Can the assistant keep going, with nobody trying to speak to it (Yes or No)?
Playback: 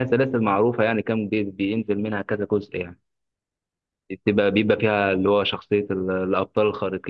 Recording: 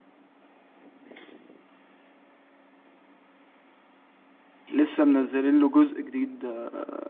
No